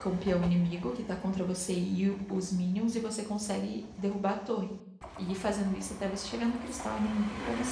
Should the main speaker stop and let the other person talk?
Yes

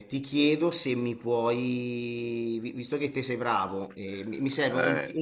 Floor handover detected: No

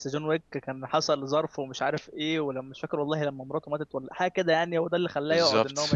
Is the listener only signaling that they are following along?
Yes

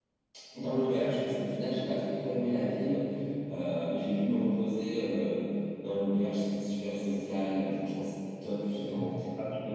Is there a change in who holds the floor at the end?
No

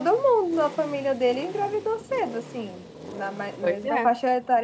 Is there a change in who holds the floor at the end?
No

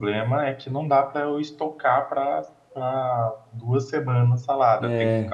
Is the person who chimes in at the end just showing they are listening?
Yes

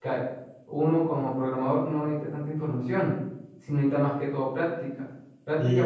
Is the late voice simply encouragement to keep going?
No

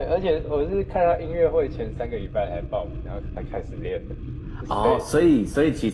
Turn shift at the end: Yes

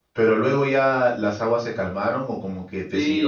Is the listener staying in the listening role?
No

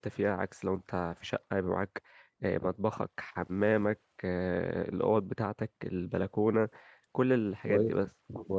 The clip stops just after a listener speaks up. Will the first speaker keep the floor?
No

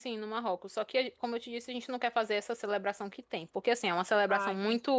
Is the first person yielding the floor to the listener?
No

